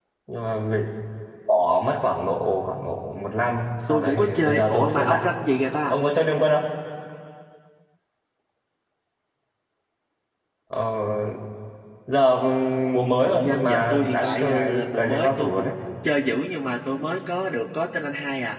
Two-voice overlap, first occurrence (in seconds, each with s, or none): 3.9 s